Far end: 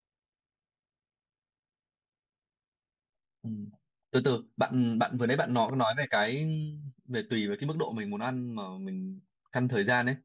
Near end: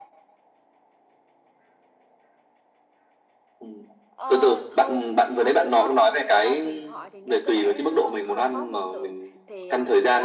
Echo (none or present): present